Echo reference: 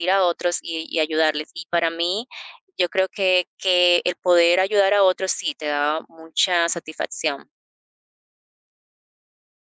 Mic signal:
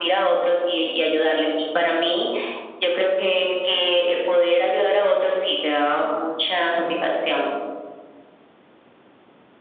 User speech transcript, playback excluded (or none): none